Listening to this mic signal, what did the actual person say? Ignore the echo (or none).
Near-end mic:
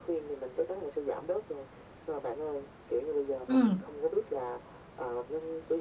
Ừm,